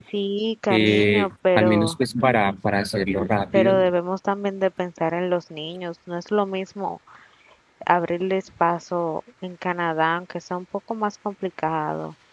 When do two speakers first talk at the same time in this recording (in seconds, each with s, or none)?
0.7 s